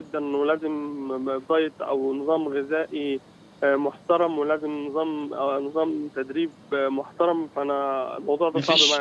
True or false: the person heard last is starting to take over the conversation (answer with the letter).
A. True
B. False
A